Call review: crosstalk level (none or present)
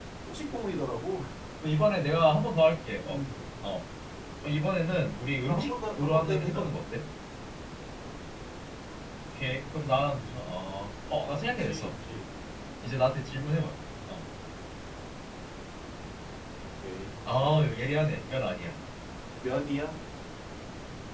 present